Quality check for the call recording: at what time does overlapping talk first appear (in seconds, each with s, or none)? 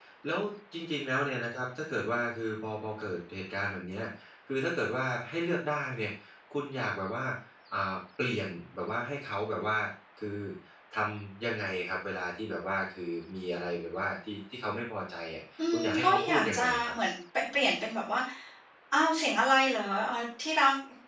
15.6 s